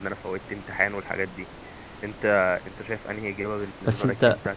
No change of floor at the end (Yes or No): No